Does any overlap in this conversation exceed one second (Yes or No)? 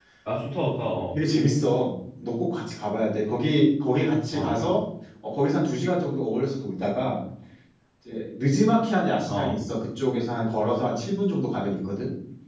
No